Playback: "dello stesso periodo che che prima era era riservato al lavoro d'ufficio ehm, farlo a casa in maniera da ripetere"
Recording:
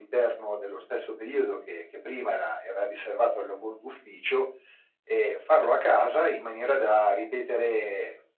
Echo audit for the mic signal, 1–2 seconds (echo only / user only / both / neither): echo only